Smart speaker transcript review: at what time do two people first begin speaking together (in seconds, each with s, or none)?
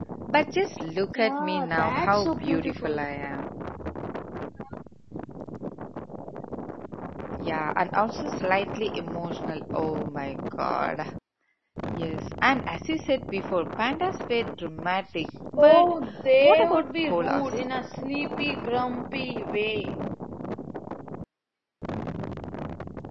1.1 s